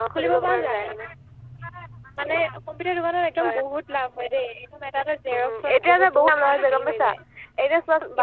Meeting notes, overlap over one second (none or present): present